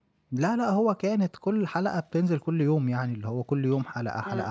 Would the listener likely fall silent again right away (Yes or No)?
No